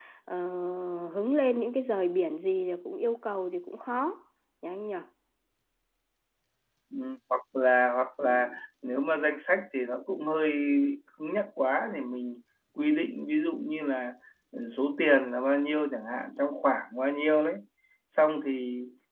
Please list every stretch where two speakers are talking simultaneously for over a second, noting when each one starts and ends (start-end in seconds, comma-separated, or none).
none